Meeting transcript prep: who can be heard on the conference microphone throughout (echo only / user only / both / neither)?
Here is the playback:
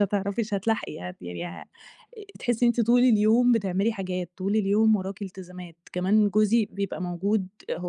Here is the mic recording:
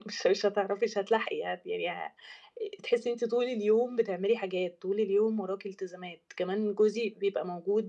echo only